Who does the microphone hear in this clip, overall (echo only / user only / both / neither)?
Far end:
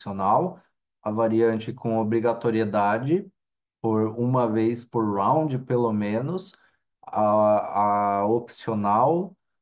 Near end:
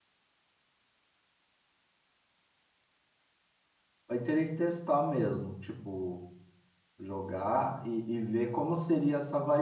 user only